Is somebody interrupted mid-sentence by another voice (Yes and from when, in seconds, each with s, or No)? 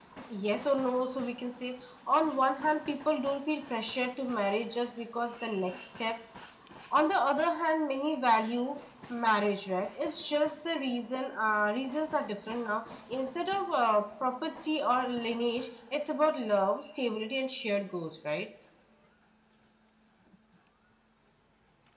No